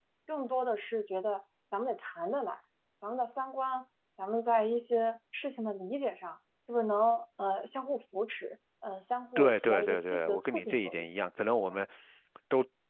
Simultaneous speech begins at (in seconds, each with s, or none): 9.4 s